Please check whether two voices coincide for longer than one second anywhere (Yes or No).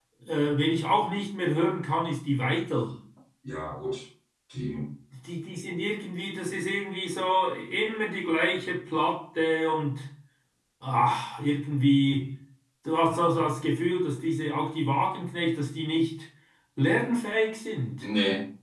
No